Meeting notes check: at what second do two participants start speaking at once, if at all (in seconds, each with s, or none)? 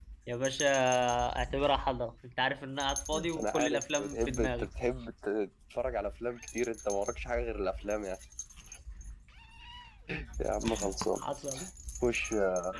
3.1 s